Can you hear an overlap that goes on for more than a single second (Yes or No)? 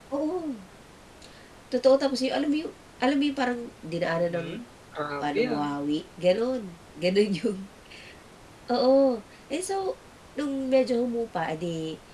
No